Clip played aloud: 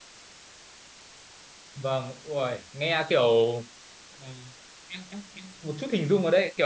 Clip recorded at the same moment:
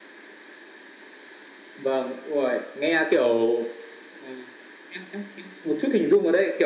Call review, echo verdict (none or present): present